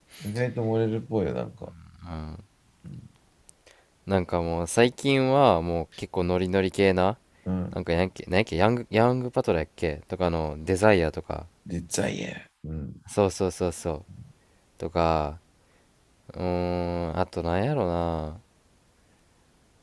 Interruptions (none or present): none